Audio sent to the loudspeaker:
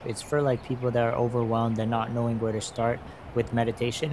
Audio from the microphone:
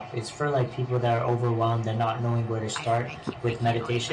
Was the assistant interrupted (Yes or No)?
Yes